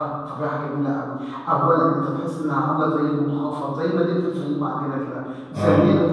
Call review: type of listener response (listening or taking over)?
listening